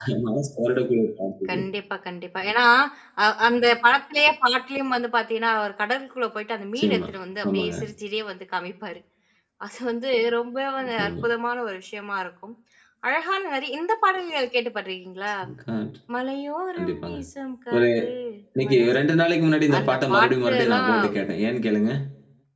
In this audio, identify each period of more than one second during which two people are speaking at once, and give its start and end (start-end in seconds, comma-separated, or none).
19.8-21.1